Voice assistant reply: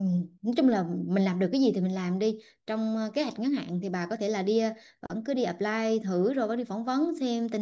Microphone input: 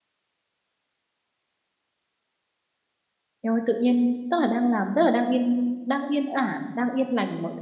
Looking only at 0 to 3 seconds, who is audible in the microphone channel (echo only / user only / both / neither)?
neither